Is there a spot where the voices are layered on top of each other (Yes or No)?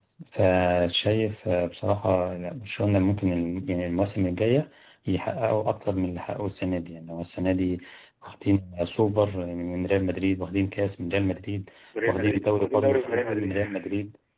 Yes